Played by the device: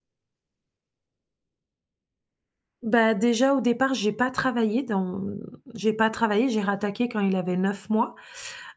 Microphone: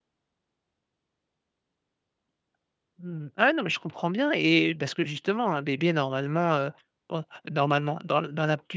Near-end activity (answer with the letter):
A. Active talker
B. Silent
A